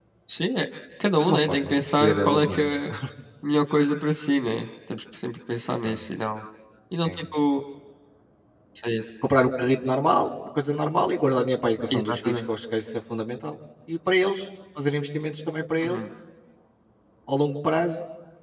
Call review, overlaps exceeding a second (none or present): present